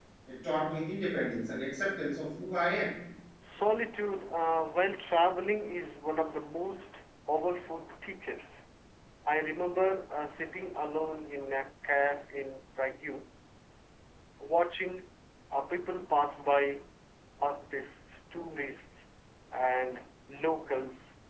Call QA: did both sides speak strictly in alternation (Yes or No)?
Yes